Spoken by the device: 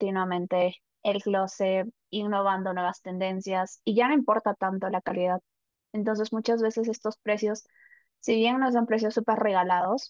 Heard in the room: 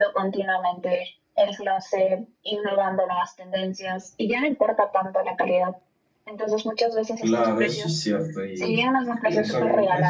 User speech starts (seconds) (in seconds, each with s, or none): 7.2 s